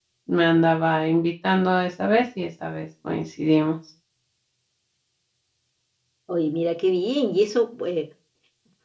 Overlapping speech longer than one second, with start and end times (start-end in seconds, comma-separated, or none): none